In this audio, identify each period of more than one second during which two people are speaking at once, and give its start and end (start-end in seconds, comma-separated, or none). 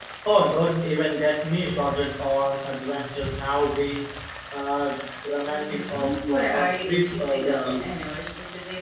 5.5-7.9